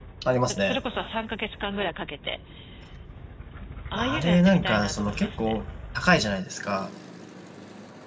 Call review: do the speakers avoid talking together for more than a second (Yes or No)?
No